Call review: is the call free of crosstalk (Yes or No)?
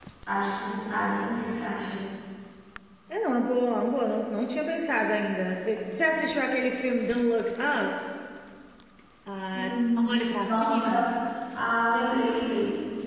No